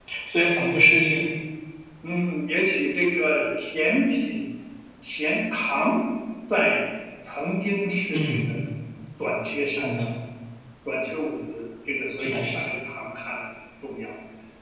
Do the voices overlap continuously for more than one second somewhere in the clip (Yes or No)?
No